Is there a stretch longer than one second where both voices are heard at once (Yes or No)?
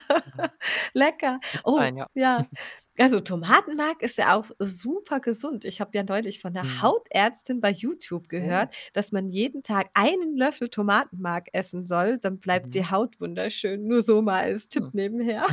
No